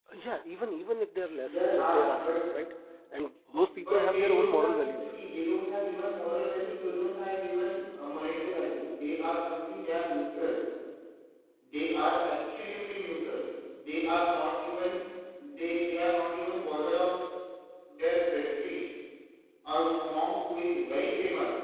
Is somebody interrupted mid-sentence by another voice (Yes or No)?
Yes